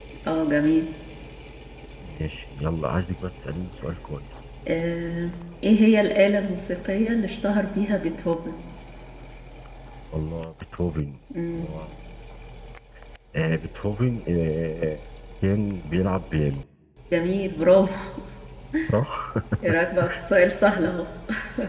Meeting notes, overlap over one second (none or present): none